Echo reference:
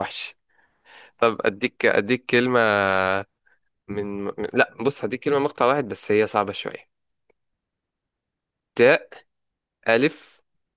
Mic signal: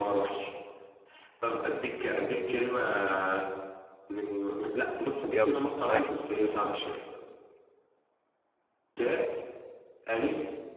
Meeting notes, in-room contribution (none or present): present